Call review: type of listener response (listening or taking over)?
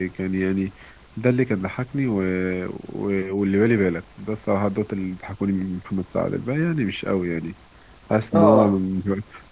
listening